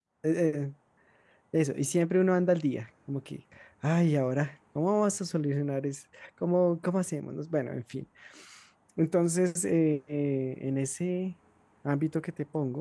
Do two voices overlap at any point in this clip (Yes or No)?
No